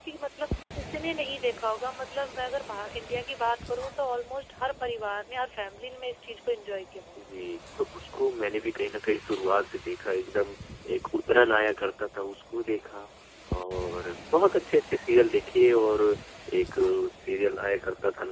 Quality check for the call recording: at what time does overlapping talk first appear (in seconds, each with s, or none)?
none